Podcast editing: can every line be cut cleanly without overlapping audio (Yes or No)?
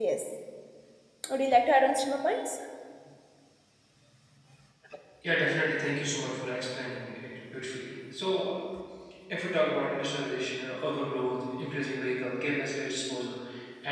Yes